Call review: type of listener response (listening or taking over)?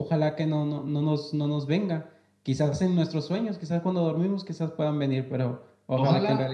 taking over